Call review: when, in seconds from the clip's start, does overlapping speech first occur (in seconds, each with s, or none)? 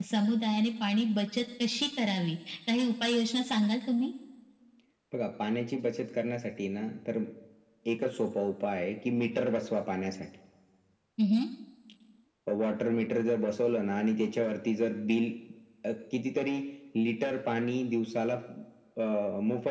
none